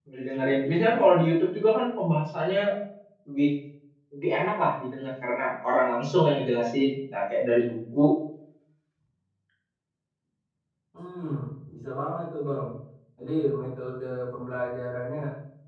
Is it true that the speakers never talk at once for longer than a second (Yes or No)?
Yes